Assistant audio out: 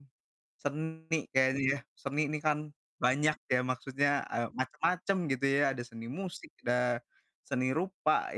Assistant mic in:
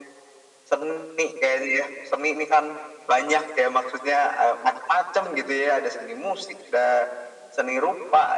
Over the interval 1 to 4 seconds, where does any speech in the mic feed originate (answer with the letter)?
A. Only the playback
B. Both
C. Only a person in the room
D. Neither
A